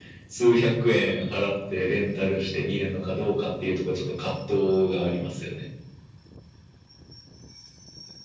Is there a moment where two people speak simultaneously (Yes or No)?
No